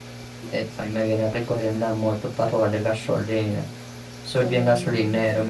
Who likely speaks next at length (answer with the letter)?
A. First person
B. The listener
B